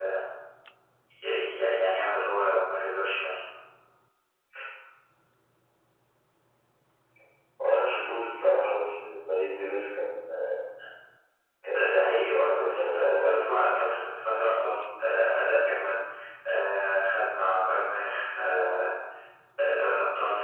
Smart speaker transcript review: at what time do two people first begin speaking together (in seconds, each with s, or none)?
11.7 s